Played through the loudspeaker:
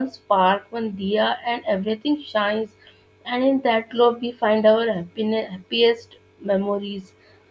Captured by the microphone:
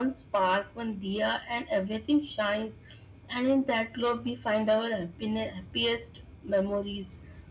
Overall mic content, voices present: echo only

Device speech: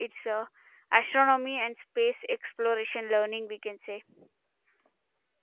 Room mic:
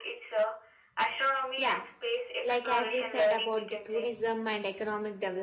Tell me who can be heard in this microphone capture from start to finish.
both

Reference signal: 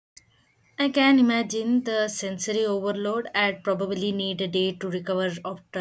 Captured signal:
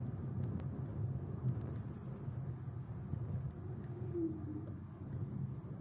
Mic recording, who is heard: neither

